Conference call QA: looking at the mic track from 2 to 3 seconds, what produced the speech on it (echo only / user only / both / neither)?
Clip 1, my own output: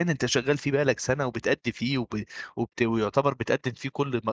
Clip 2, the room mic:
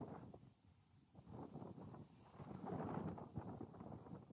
neither